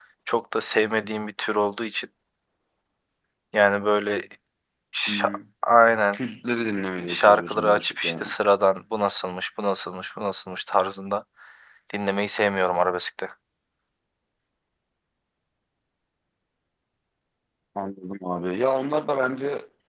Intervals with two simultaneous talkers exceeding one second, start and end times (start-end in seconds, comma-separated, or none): 7.1-8.3